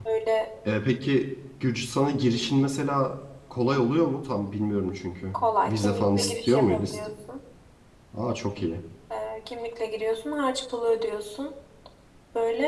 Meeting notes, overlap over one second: present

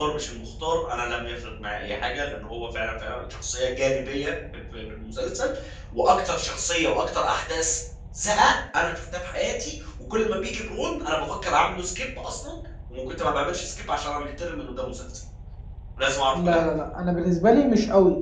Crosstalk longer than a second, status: none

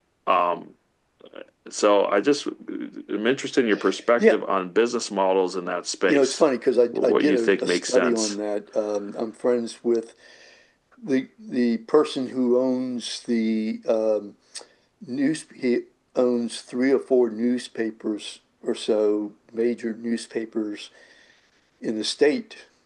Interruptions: present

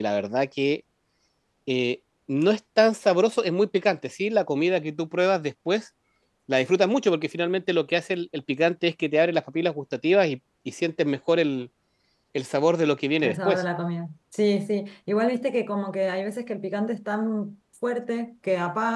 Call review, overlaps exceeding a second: none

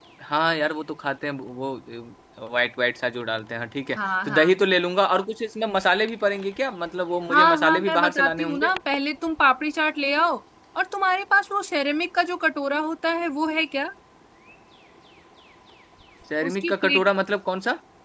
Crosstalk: present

